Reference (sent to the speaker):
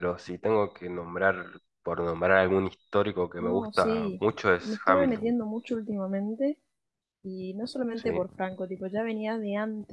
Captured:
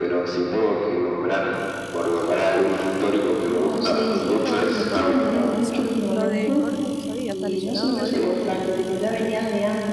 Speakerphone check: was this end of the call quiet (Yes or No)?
No